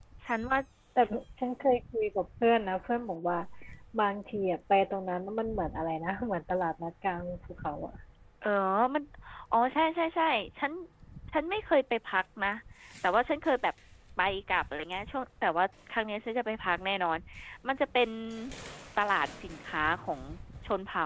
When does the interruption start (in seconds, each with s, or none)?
none